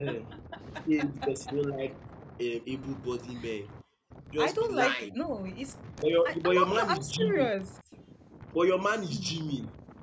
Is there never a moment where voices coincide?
No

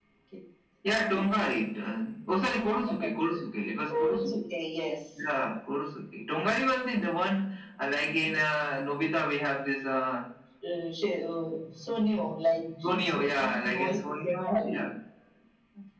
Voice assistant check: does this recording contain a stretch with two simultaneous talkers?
Yes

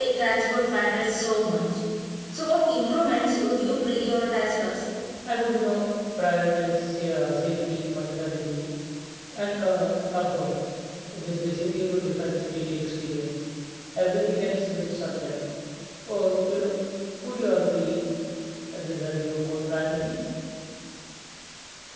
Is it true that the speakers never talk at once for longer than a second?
Yes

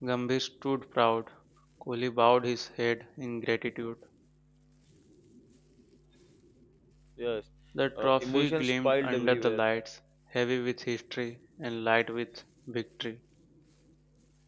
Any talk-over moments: Yes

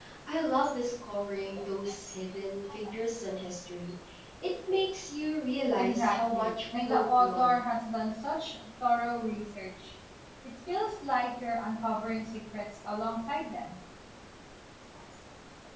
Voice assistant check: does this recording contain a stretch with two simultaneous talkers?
Yes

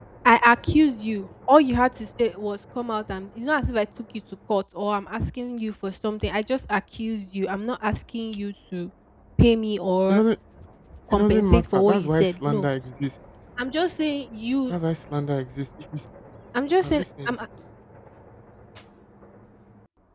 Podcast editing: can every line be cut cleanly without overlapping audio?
No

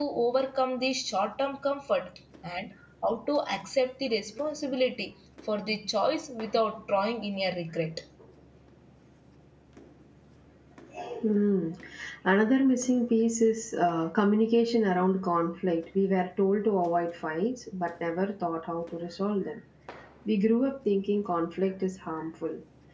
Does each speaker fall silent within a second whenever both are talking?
Yes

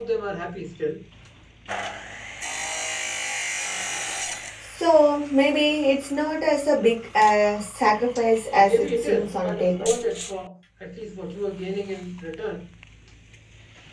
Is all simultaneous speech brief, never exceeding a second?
No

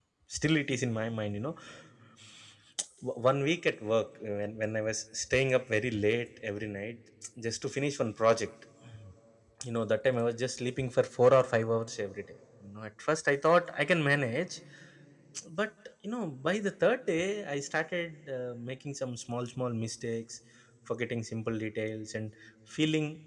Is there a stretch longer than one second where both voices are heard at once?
No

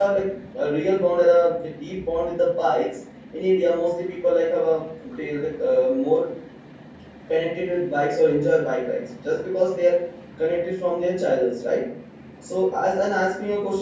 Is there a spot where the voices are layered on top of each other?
No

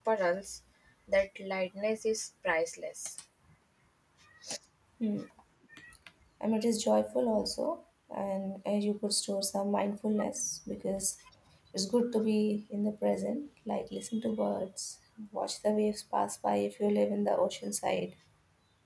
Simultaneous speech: No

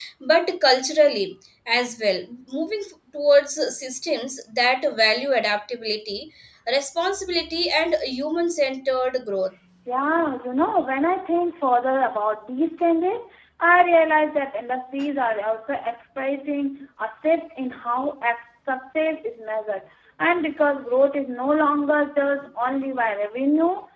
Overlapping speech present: No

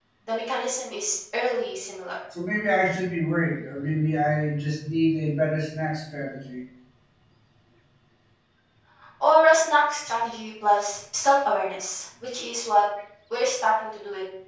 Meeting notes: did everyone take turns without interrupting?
Yes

